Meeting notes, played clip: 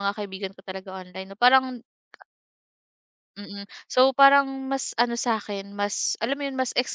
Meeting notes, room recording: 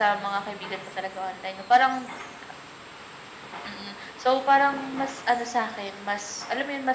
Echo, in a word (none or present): present